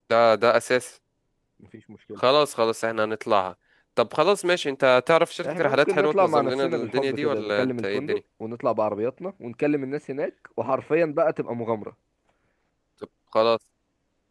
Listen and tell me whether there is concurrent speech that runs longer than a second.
Yes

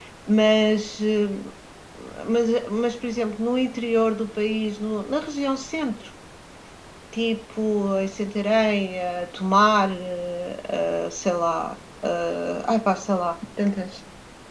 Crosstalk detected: No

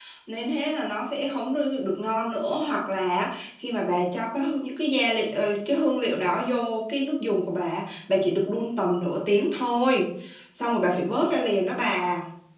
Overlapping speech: No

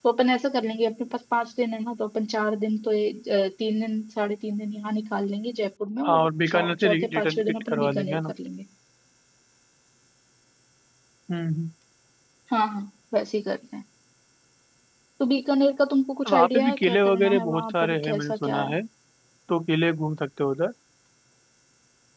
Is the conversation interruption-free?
No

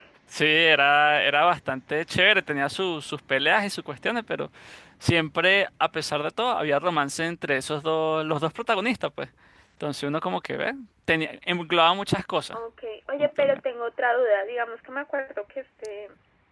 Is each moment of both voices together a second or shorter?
Yes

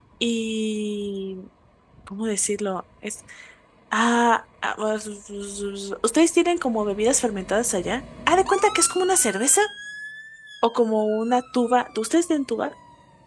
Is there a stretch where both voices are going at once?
No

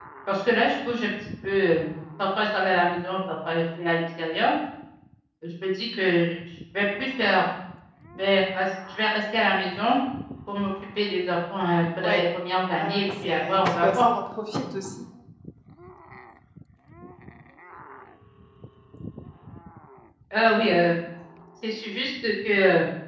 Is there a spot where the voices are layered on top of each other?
Yes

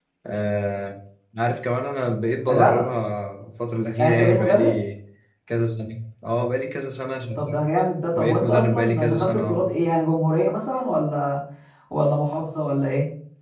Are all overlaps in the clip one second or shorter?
No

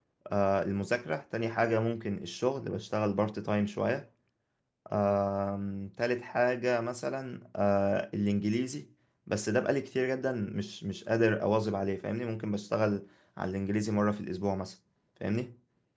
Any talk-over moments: No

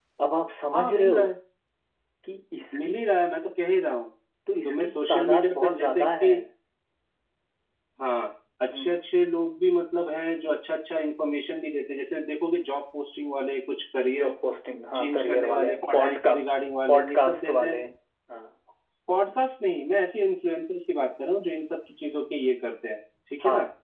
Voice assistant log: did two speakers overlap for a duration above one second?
Yes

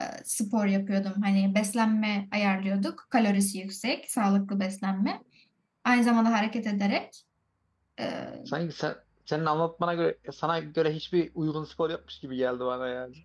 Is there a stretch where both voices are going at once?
No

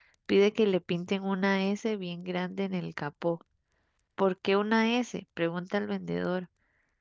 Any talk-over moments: No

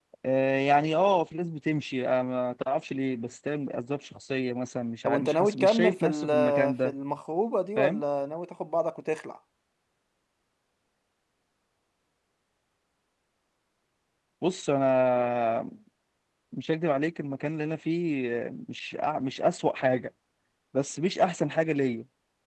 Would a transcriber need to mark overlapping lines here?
Yes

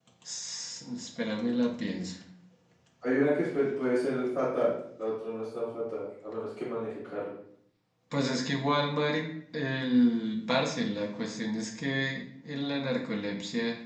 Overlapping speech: No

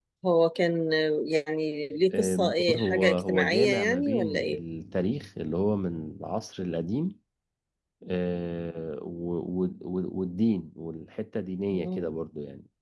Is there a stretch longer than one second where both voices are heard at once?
Yes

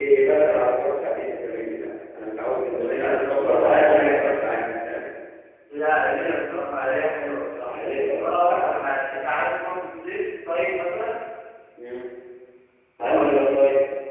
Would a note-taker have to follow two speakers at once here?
Yes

